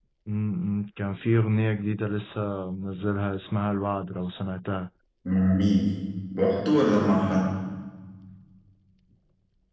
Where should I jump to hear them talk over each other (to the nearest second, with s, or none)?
none